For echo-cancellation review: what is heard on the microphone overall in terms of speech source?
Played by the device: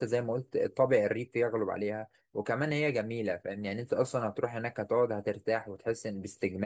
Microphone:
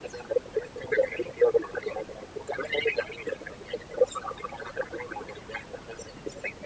echo only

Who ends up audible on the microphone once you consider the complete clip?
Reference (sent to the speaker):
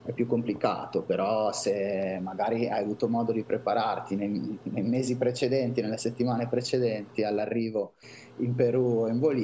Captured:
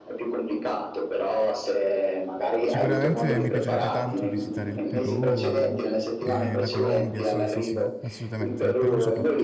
both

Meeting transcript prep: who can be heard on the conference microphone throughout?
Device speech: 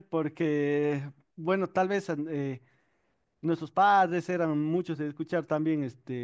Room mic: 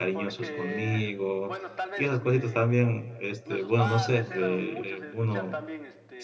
both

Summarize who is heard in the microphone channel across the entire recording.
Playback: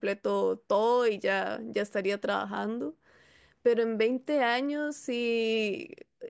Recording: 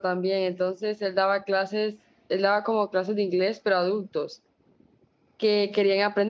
user only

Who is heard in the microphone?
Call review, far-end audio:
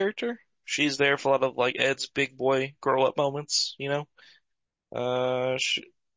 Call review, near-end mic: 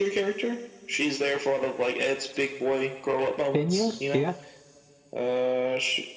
both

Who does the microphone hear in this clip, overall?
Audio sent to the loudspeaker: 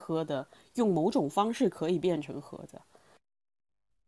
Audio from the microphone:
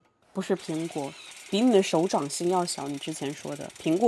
user only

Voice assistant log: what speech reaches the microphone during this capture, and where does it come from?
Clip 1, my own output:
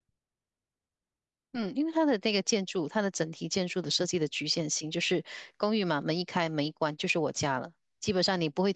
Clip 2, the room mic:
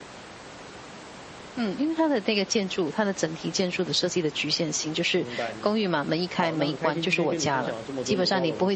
both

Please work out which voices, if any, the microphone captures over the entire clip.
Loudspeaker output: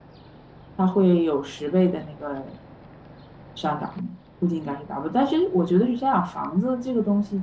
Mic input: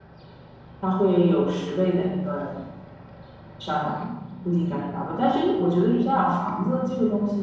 echo only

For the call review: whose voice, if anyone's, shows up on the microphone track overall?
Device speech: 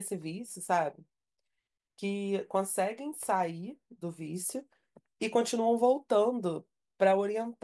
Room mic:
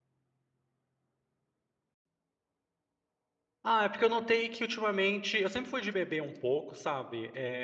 user only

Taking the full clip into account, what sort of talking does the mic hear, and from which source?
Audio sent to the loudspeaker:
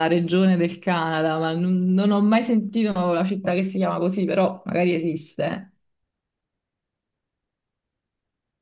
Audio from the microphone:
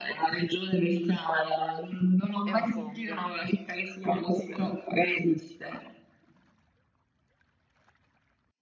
both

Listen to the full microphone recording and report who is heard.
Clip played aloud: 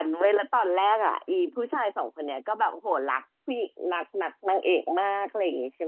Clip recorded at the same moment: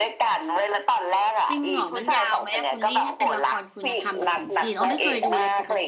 both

